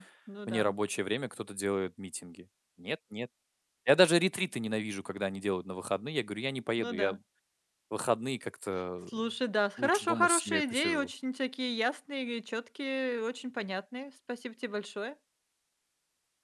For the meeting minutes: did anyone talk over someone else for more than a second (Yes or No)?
Yes